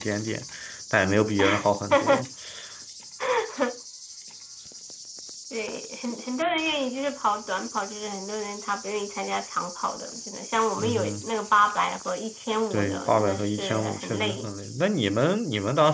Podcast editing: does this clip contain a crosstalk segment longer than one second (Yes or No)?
Yes